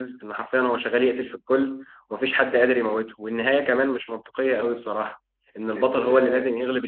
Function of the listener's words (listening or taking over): listening